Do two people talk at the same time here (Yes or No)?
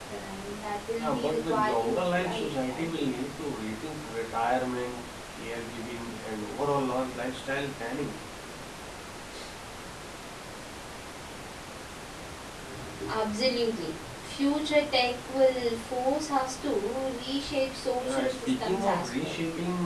Yes